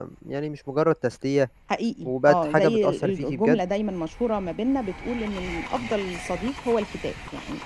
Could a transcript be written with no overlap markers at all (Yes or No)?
No